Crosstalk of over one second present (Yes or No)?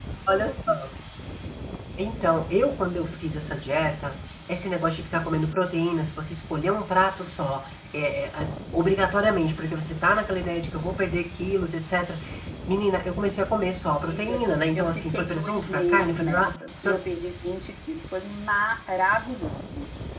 Yes